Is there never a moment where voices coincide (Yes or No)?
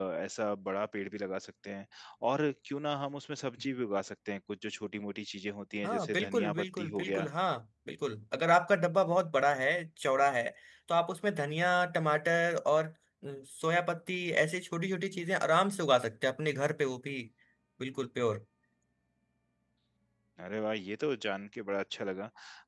No